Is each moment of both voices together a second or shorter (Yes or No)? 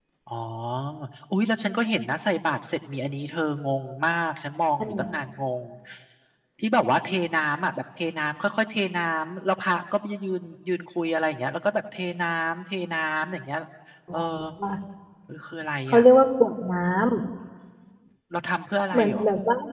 Yes